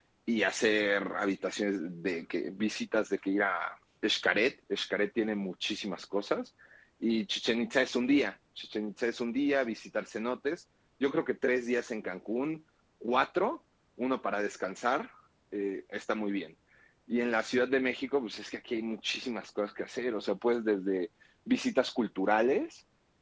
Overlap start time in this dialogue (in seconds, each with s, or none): none